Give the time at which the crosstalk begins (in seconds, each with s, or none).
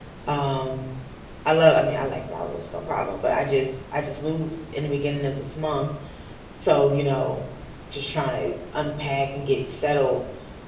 none